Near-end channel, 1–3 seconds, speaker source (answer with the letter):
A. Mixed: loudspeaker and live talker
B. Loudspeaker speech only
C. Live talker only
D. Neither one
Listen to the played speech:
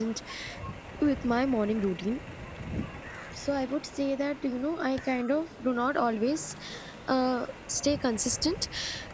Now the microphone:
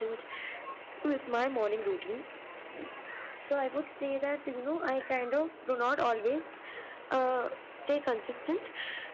B